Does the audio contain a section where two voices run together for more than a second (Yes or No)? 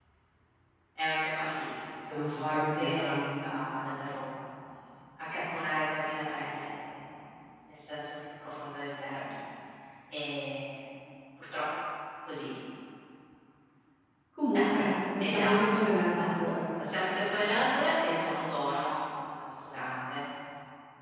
Yes